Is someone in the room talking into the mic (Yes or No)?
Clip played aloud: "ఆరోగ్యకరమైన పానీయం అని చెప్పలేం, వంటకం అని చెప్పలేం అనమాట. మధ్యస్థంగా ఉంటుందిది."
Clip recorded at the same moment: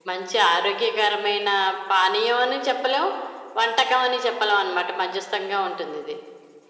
No